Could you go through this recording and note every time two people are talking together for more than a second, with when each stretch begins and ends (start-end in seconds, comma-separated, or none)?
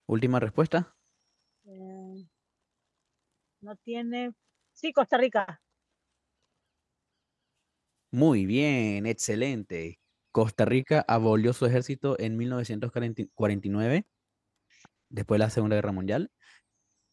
none